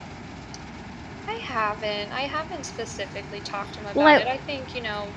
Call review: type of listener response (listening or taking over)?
listening